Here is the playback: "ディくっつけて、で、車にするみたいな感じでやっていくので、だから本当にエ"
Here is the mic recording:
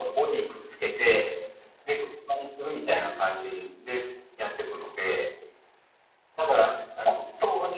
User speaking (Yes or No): No